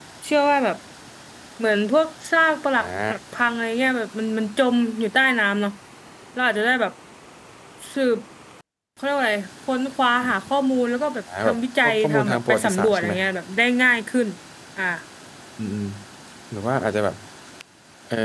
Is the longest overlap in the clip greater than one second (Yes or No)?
Yes